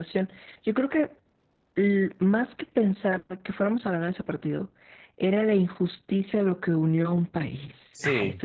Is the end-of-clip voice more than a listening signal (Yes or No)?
Yes